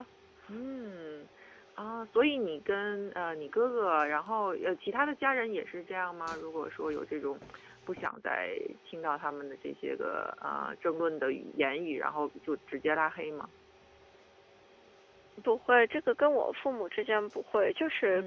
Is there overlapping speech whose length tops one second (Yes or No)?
No